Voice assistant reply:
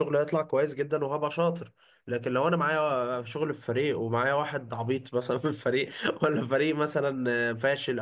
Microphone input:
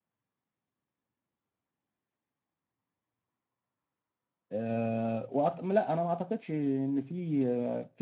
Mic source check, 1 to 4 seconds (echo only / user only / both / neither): neither